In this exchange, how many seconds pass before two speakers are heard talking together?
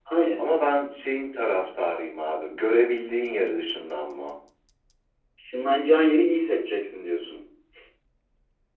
none

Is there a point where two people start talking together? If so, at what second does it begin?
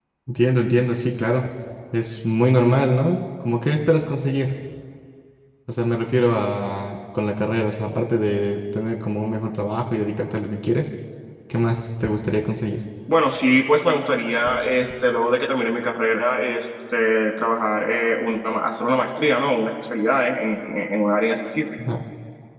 none

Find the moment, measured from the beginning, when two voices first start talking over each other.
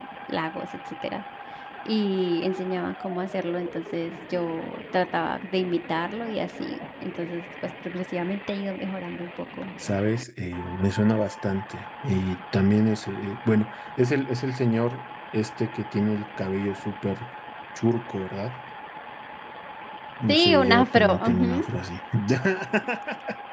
20.3 s

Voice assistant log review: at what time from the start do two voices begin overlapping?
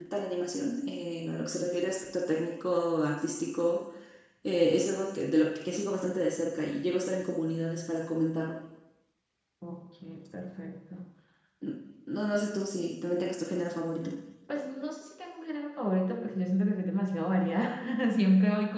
none

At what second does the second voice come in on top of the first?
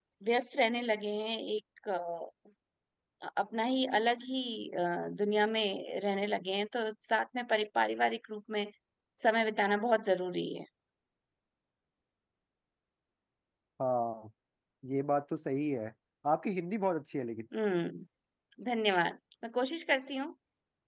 none

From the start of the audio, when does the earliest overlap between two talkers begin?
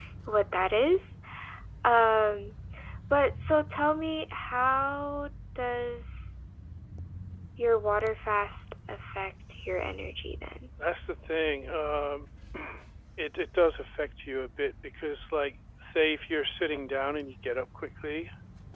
none

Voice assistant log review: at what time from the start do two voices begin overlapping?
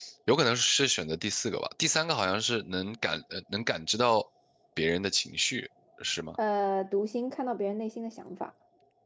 none

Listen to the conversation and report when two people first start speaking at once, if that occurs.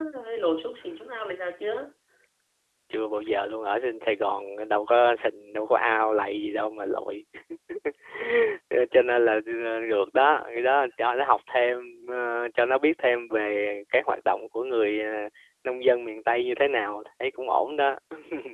none

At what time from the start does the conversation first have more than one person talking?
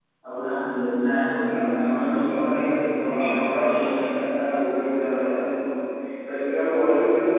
1.4 s

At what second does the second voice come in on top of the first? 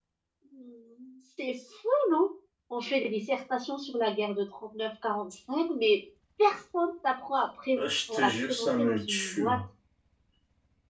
7.8 s

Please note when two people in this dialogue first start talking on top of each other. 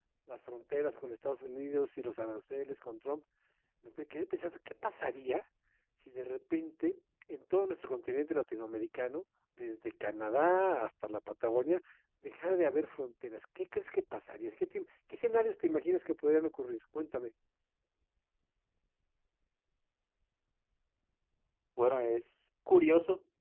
none

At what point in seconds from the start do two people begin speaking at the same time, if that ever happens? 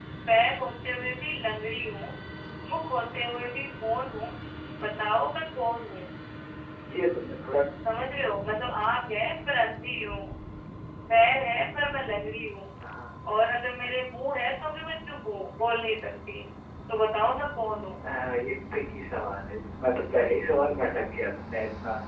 none

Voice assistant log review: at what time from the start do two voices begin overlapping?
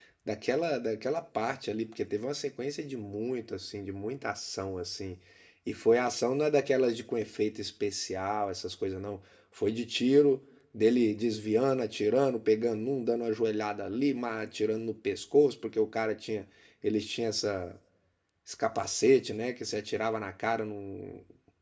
none

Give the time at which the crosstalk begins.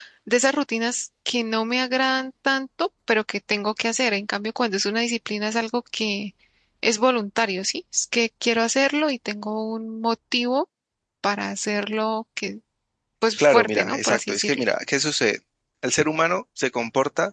13.4 s

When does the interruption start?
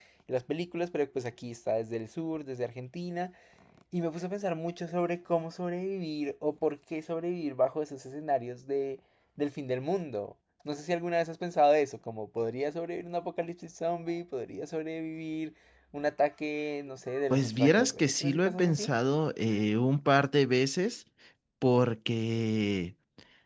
17.3 s

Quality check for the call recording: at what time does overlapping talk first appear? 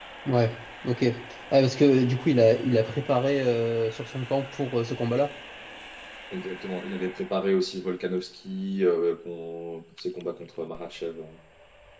none

